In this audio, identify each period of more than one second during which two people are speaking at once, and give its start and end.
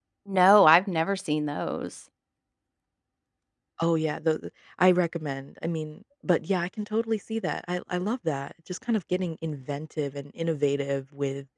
none

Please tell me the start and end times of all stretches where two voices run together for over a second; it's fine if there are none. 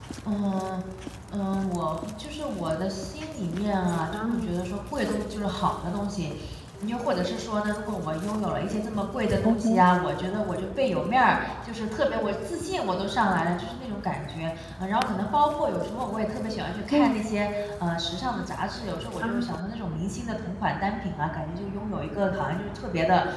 none

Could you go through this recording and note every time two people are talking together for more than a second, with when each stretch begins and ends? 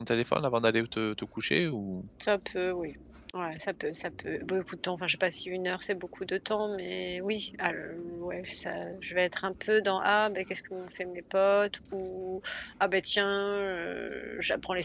none

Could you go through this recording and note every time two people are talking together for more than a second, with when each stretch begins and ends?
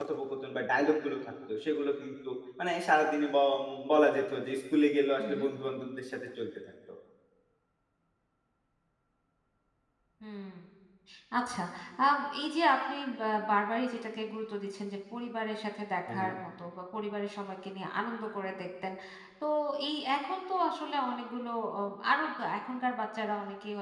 none

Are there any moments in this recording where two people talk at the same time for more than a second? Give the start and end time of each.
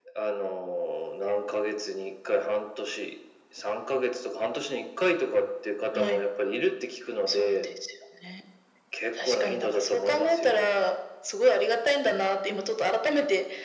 9.2-10.6

